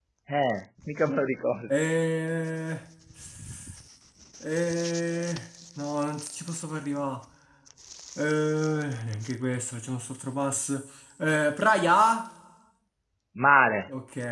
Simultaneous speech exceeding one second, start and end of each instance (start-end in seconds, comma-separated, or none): none